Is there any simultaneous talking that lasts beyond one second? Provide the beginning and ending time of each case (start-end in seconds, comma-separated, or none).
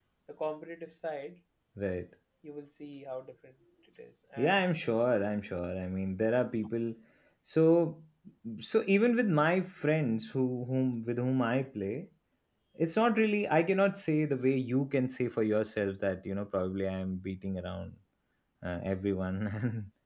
none